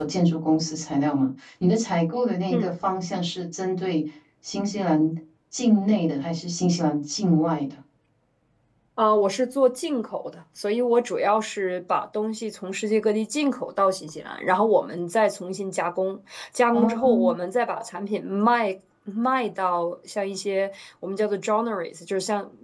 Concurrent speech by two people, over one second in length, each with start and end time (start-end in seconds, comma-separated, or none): none